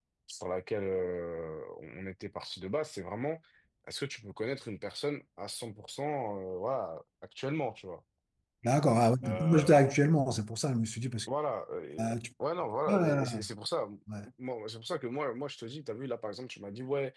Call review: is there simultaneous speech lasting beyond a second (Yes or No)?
No